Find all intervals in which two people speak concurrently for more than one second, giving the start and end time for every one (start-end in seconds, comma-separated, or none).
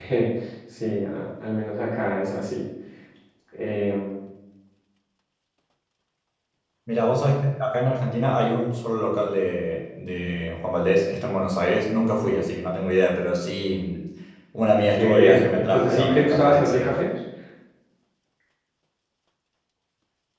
15.0-17.0